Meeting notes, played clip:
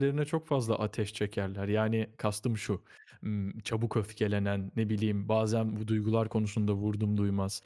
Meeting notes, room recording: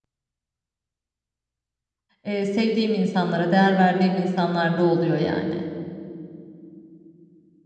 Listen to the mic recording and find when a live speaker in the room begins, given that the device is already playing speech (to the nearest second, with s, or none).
2 s